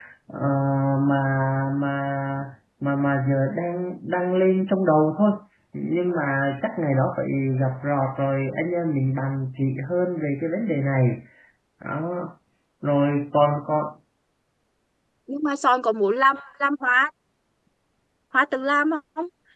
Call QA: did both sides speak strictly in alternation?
Yes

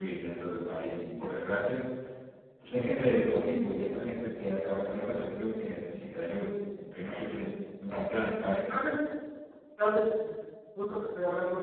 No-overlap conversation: Yes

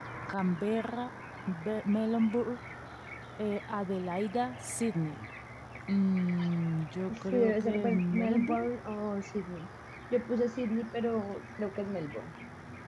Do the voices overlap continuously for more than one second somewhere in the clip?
Yes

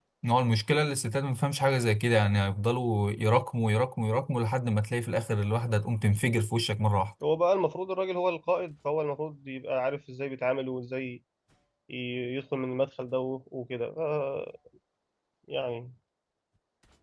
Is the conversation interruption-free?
Yes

